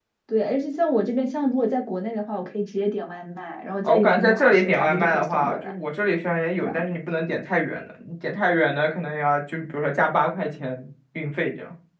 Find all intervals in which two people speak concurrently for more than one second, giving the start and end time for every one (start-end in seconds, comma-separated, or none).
3.8-5.7